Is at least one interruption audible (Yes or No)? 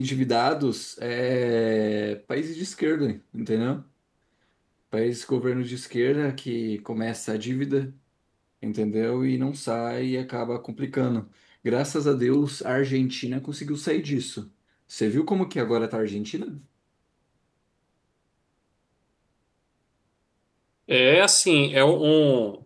No